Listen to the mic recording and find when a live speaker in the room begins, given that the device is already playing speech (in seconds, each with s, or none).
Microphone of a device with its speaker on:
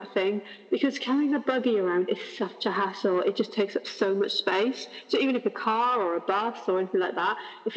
none